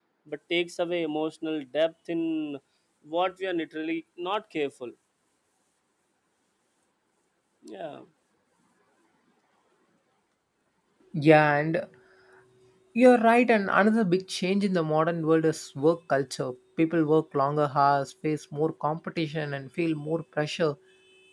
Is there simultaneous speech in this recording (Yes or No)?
No